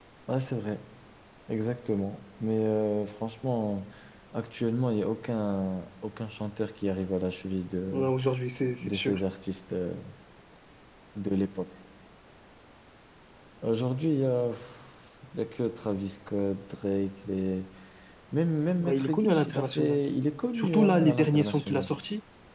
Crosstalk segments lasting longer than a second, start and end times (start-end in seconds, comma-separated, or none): 18.8-20.0, 20.6-21.9